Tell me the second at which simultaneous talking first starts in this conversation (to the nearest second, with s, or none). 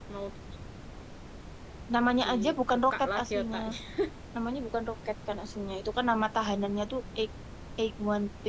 2 s